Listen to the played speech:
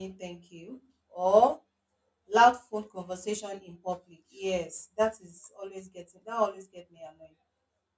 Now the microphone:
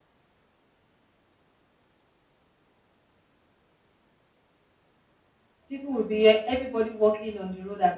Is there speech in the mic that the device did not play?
Yes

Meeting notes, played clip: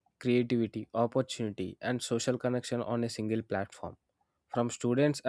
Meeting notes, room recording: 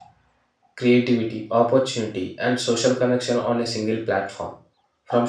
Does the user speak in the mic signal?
No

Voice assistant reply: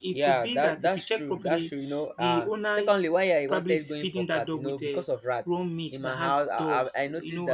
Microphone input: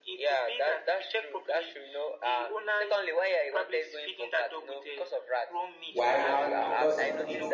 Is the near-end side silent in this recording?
No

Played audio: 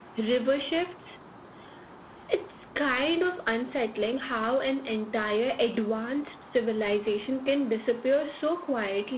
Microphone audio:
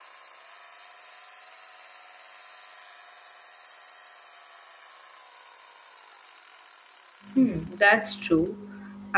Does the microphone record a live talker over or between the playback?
Yes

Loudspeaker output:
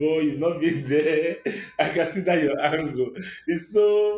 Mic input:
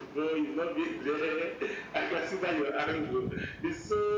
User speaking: No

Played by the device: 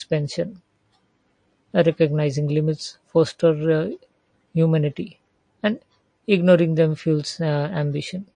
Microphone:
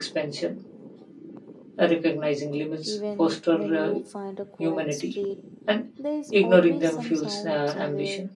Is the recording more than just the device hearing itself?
Yes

